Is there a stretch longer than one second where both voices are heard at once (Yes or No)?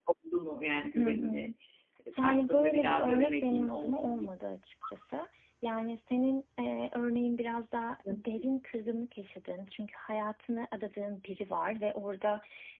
Yes